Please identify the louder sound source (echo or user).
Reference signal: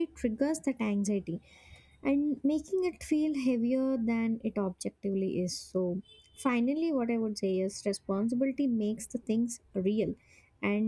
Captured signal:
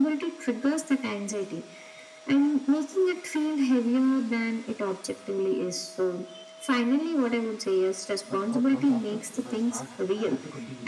echo